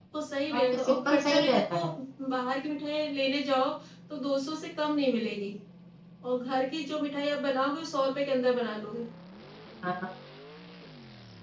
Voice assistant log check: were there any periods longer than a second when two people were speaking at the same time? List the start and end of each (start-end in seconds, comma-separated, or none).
0.5-1.8